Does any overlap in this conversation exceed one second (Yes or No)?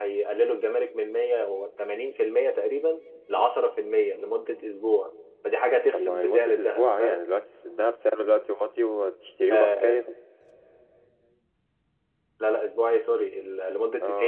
Yes